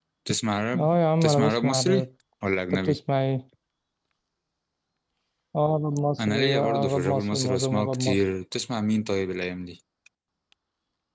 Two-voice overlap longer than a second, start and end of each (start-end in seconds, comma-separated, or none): 0.8-2.1, 6.2-8.2